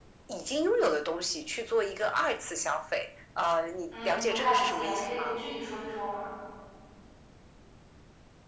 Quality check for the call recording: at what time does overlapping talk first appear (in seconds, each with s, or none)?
3.9 s